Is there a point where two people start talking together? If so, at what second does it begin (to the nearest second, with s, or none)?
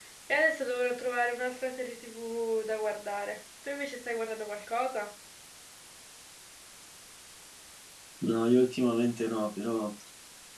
none